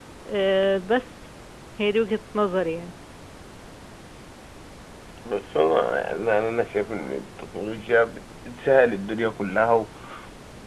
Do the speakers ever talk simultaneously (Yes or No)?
No